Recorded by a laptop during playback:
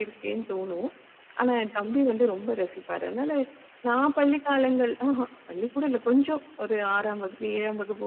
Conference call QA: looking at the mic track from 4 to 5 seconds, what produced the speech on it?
echo only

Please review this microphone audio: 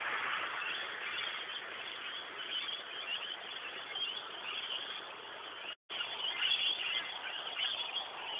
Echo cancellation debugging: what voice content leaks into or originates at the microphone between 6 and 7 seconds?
neither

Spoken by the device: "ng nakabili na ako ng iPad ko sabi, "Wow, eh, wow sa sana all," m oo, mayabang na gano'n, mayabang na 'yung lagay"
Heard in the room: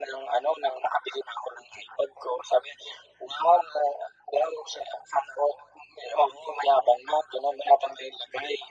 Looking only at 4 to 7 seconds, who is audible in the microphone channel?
echo only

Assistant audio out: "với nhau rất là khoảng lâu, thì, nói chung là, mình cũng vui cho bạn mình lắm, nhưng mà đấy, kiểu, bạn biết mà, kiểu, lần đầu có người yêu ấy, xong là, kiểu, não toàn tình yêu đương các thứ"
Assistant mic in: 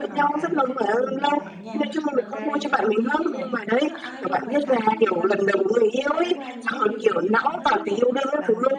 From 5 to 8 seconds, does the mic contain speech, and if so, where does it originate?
both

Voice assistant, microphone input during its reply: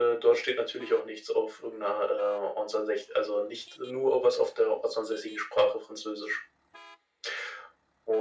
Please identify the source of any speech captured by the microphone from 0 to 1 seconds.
echo only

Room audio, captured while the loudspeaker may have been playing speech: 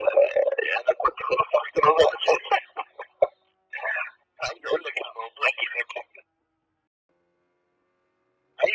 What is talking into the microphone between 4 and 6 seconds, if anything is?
echo only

